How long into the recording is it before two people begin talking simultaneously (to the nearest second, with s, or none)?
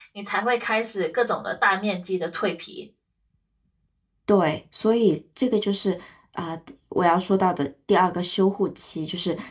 none